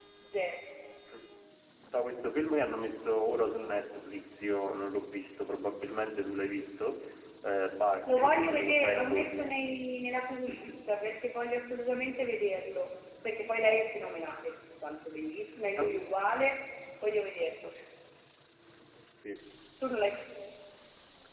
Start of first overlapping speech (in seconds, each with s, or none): 8.1 s